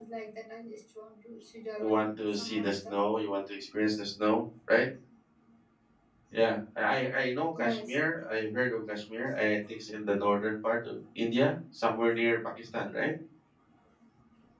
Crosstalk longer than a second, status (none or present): present